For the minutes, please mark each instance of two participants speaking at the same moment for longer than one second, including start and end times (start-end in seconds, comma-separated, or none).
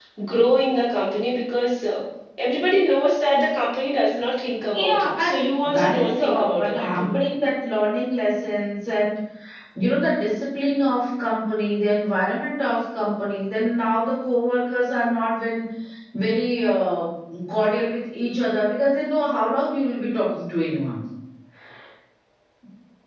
4.7-7.2